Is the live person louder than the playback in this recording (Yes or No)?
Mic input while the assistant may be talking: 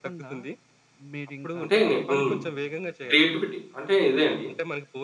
Yes